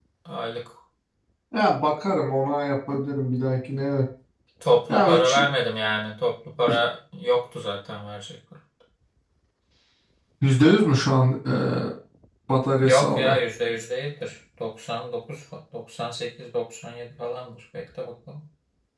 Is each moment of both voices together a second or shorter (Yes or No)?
Yes